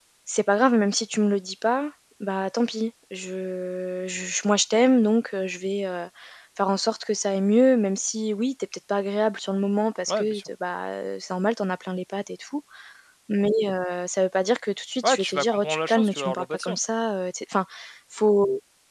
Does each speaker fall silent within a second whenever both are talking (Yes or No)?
No